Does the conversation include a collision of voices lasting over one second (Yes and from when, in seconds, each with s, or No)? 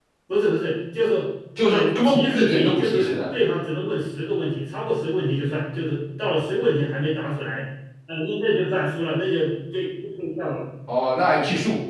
Yes, from 1.6 s